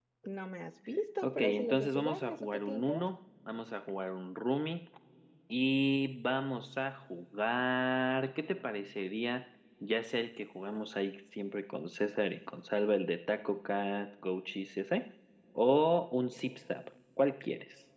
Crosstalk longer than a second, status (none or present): present